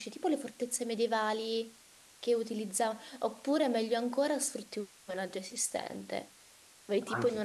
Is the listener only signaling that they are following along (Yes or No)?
Yes